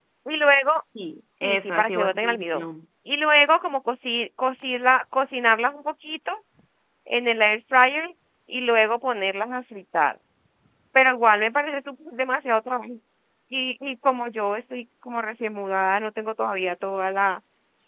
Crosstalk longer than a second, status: present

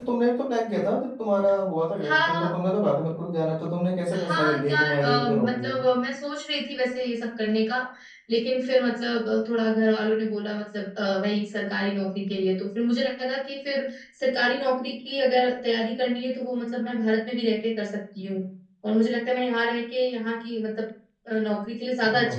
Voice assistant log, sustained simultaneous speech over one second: present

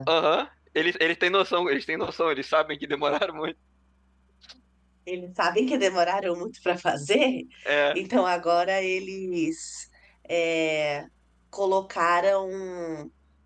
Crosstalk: none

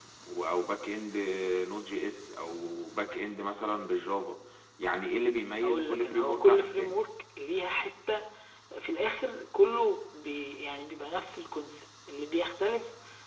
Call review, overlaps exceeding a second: present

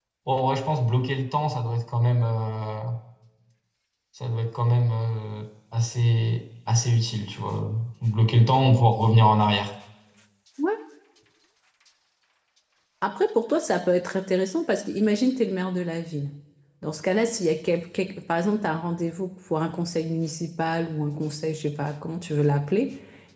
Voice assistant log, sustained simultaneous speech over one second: none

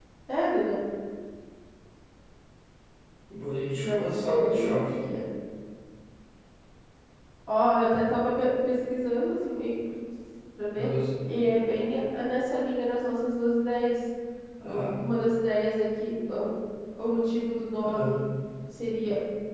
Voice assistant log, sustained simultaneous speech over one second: present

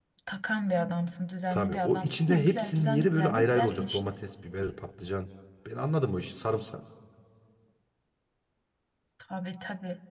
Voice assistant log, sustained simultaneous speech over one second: present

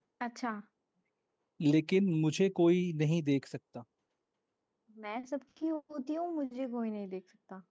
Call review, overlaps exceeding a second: none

